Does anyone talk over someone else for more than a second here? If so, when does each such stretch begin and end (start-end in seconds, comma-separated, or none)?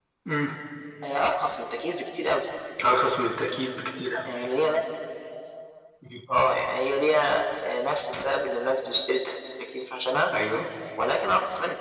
none